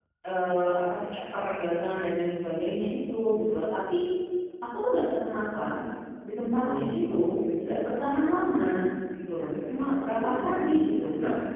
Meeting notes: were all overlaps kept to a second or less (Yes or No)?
No